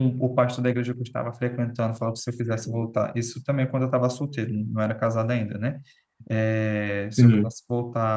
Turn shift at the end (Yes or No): No